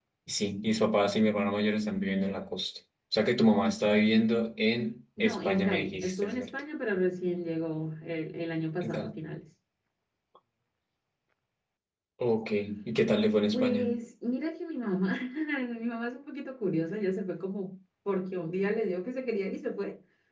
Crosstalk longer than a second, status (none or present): present